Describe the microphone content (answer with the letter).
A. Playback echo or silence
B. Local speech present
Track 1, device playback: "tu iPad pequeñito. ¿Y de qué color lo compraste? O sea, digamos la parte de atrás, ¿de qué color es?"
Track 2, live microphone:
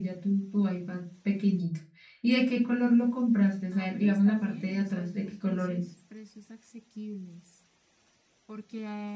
B